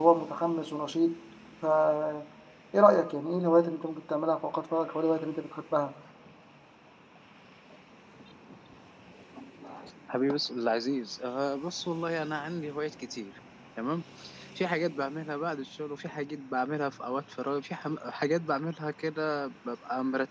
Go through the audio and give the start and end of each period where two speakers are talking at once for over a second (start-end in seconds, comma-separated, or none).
none